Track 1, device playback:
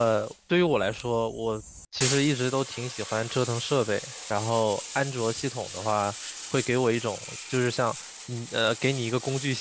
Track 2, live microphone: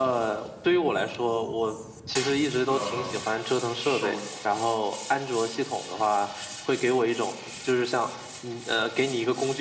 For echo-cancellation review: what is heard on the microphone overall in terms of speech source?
both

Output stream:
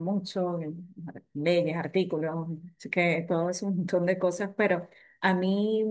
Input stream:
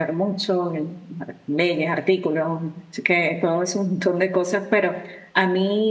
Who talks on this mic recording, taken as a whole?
echo only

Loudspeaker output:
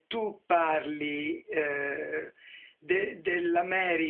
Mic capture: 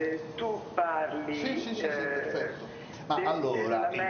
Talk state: both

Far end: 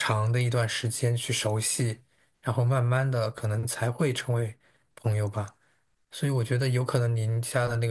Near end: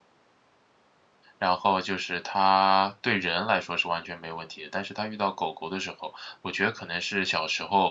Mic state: user only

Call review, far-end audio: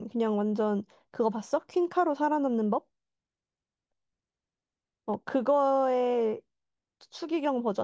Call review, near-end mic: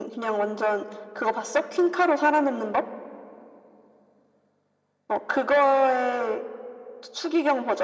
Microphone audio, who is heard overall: echo only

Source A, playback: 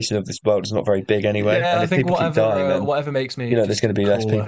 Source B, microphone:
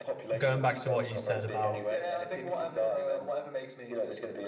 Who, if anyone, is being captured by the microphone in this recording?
both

